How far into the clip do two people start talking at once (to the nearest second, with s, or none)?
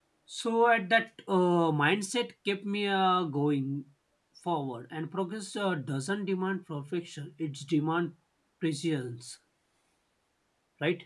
none